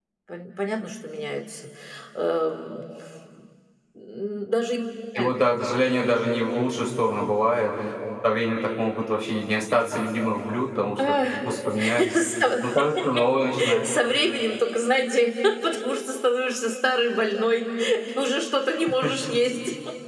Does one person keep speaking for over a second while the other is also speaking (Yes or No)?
No